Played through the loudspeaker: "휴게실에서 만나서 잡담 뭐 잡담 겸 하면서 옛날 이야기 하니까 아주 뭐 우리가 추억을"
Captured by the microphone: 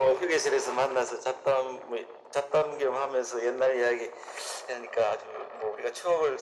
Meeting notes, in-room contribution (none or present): none